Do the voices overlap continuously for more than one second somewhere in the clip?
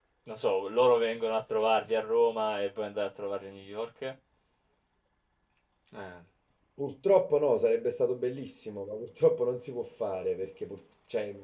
No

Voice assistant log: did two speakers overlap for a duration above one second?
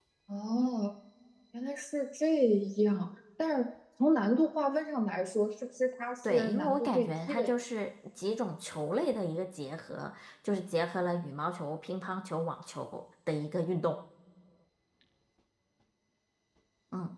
Yes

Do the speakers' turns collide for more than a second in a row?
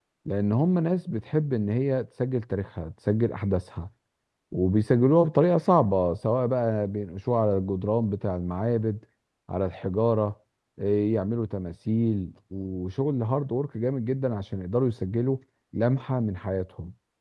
No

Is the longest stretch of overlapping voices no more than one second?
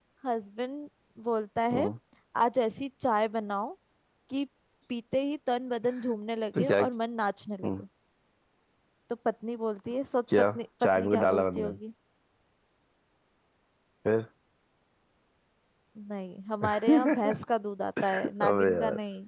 No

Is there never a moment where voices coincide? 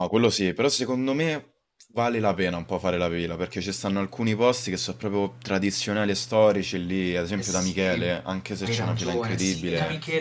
No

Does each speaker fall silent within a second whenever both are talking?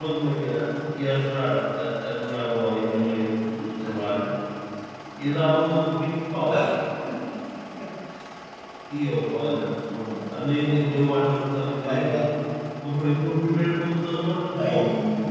Yes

